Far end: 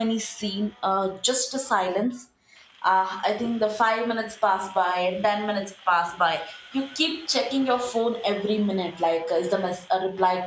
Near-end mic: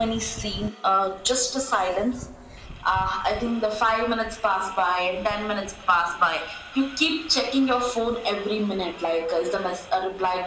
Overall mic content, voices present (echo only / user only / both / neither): echo only